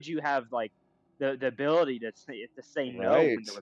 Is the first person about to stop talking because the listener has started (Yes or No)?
No